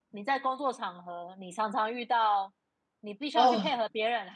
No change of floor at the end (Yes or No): Yes